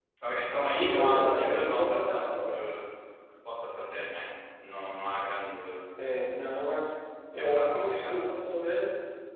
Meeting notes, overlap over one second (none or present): present